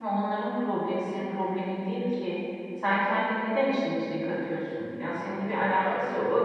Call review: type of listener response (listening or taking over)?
listening